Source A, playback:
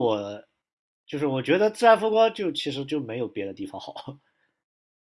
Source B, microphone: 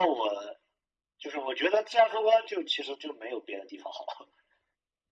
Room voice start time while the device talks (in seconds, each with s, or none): none